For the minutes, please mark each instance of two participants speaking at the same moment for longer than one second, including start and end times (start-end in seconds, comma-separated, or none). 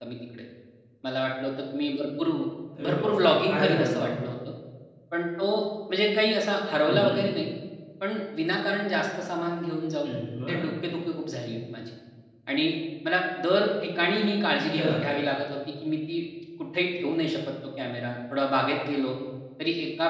2.8-4.1